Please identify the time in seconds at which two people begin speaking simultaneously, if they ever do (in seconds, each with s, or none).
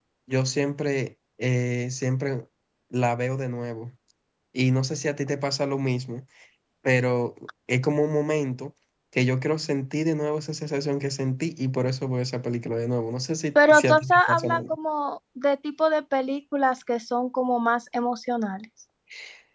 13.6 s